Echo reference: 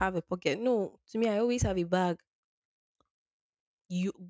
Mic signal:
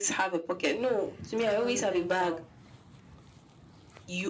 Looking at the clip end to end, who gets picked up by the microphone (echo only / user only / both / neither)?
both